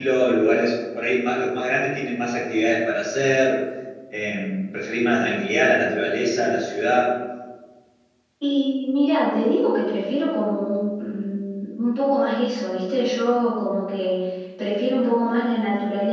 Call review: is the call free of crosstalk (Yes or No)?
Yes